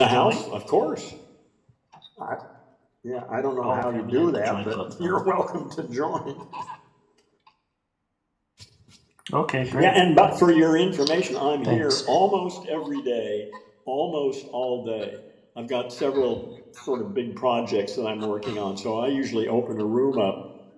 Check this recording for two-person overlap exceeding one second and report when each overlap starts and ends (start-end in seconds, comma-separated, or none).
3.6-5.2